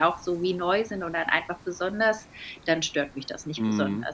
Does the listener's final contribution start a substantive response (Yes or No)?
Yes